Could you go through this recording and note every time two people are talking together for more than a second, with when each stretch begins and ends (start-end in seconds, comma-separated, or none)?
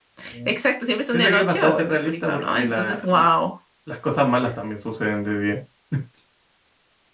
1.1-3.2